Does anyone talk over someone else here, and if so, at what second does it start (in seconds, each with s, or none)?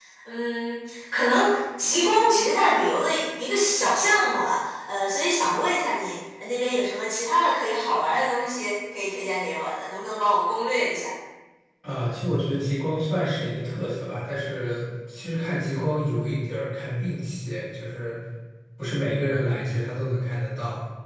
none